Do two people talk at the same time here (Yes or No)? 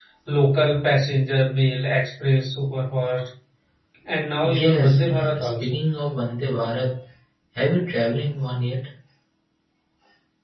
Yes